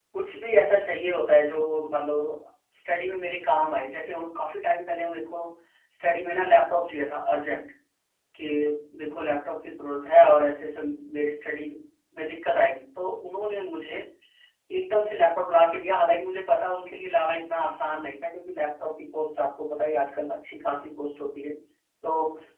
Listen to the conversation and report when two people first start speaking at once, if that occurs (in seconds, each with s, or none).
none